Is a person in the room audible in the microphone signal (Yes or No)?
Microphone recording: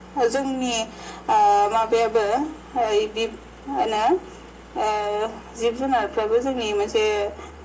No